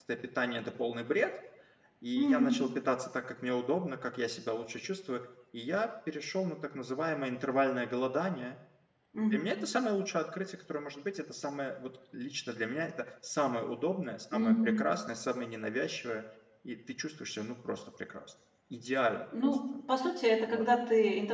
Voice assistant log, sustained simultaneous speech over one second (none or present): none